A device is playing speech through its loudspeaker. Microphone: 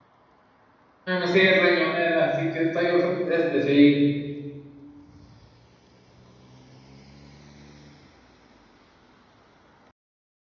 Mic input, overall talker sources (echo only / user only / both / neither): user only